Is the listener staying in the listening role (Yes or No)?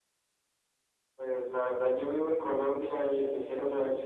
Yes